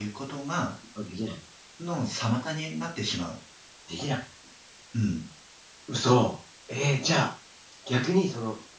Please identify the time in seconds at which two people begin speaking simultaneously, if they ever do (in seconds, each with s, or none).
none